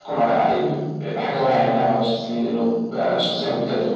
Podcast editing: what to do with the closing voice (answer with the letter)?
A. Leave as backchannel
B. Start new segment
B